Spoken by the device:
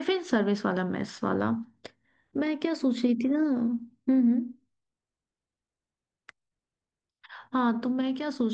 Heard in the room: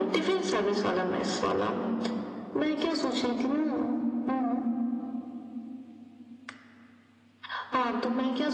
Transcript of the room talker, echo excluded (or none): none